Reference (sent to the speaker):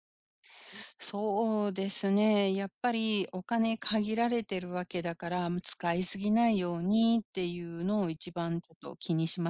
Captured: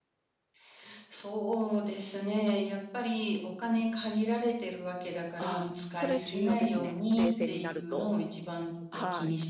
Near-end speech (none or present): present